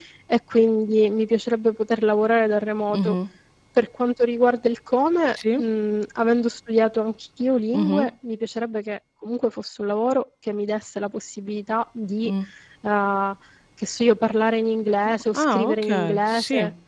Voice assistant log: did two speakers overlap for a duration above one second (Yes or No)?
Yes